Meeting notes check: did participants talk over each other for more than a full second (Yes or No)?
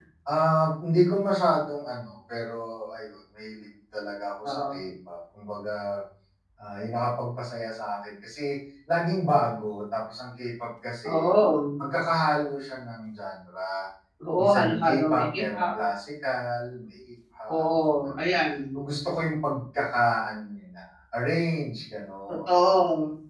Yes